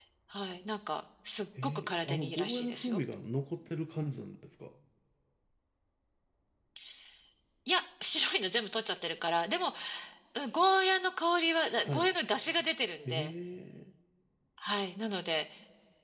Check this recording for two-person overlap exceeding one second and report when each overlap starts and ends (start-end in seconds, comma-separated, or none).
1.6-3.0